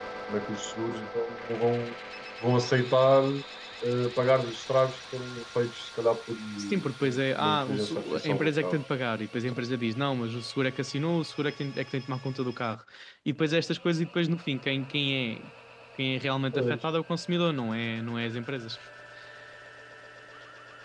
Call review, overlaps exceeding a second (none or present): present